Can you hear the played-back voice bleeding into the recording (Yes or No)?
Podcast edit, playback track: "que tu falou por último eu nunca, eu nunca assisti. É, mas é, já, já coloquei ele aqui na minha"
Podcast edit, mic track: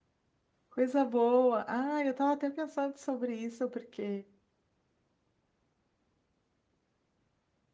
No